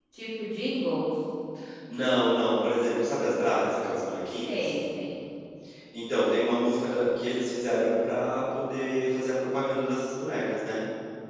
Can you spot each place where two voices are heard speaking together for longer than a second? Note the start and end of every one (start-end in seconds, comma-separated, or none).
none